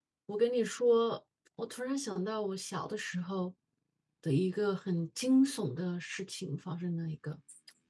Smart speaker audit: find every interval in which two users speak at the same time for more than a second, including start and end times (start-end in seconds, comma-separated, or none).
none